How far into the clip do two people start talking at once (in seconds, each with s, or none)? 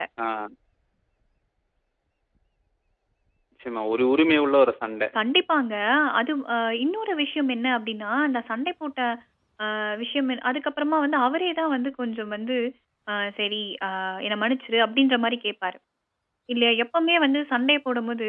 none